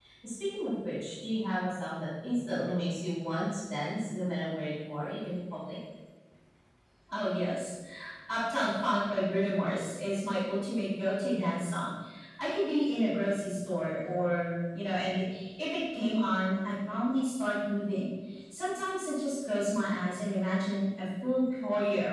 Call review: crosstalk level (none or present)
none